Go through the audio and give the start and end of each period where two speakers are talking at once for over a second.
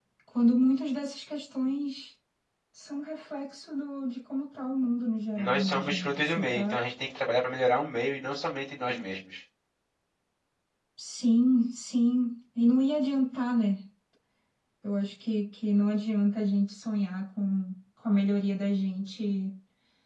5.4-6.8

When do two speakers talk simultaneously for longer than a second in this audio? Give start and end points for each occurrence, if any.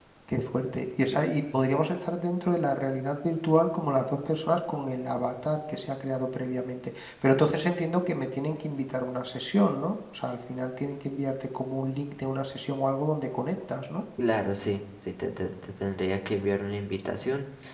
none

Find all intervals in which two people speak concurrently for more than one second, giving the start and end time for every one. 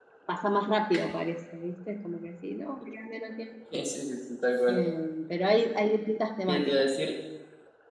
none

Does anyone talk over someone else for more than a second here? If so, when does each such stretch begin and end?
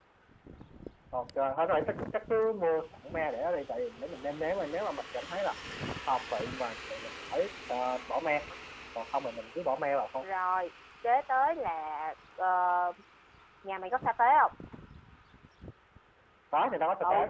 none

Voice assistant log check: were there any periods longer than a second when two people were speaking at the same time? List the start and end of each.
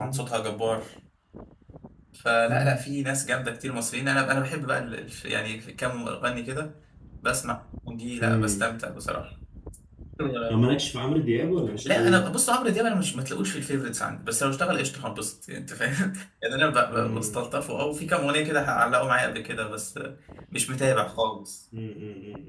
none

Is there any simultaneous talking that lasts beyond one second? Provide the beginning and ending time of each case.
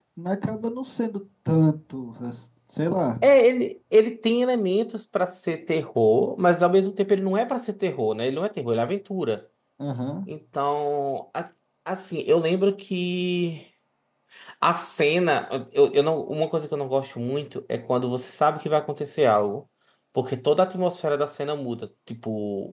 none

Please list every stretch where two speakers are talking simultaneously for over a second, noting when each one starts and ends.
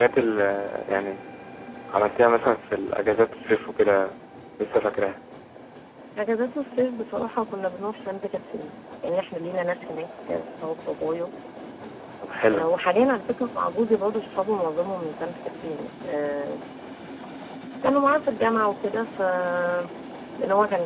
none

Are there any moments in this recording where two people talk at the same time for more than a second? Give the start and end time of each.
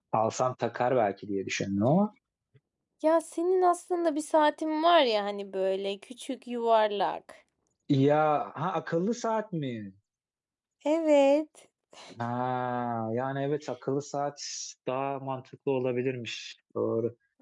none

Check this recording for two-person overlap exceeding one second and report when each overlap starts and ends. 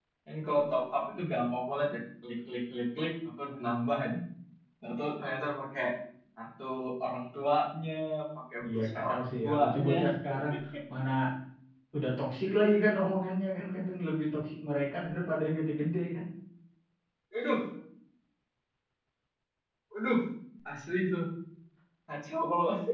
8.7-9.9

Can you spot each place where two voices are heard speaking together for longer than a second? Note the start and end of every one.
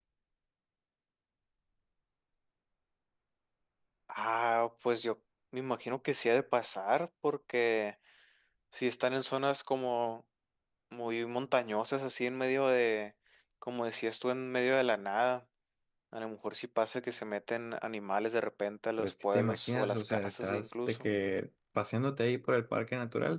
19.0-21.1

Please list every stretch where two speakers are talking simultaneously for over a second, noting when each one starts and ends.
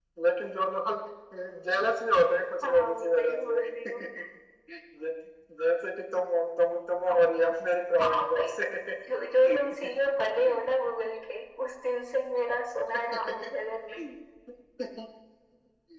2.6-4.0

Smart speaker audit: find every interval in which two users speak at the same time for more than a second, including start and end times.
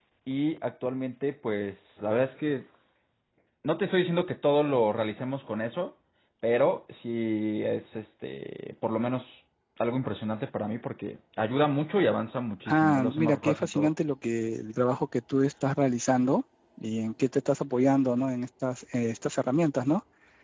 12.7-13.9

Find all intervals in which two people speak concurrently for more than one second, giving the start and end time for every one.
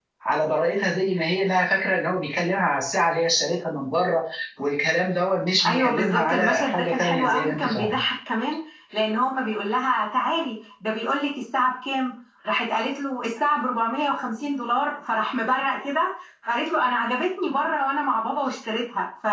5.7-8.0

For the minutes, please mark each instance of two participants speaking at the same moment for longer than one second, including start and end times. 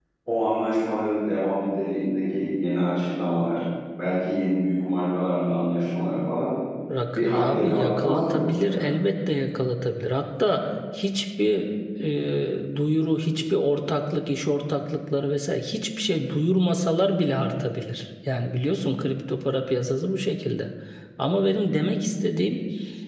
7.1-8.9

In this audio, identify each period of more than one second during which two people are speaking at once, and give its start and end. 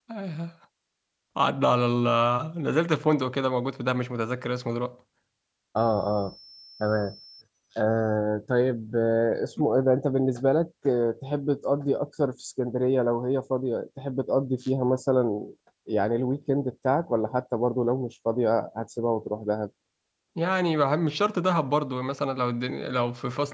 none

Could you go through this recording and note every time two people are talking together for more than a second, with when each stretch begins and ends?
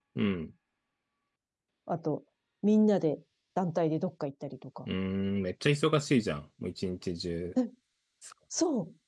none

